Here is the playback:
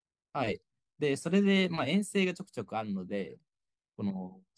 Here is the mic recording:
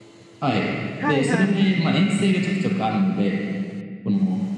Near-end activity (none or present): present